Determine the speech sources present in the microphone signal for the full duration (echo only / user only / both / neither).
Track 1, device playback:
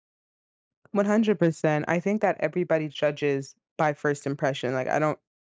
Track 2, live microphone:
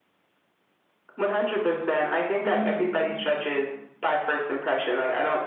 both